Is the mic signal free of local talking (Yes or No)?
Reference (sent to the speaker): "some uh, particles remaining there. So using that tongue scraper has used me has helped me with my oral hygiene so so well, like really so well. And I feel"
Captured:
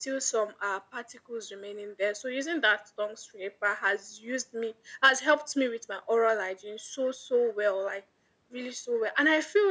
Yes